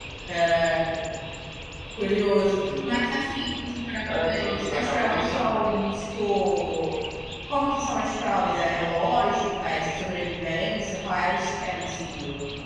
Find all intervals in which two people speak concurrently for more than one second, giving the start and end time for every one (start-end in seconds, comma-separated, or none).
4.0-5.7